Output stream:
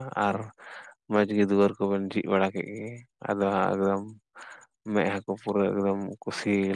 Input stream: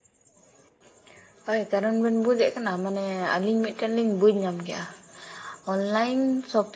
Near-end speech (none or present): present